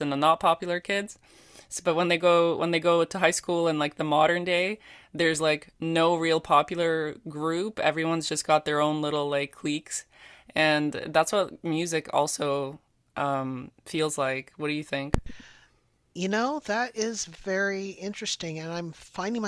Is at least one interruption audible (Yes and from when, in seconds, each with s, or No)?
No